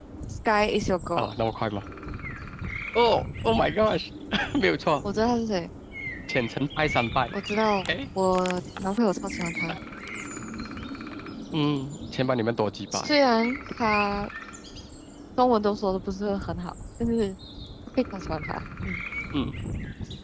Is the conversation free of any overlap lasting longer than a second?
Yes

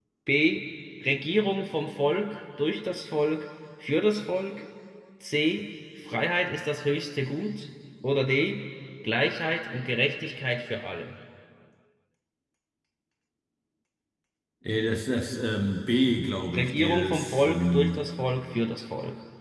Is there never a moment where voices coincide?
No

